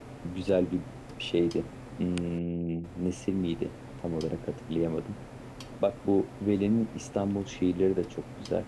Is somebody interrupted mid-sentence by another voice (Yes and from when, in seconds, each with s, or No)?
No